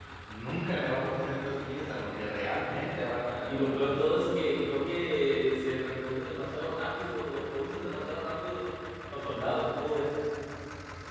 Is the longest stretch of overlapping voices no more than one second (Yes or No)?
Yes